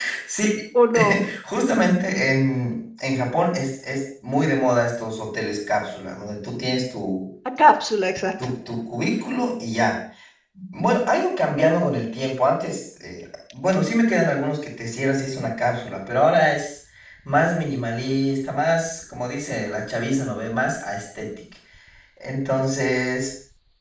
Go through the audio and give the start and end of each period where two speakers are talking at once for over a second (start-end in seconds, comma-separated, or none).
none